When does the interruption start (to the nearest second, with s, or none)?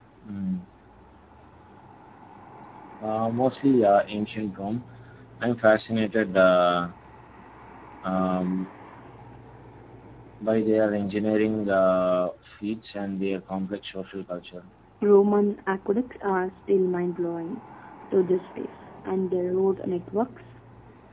none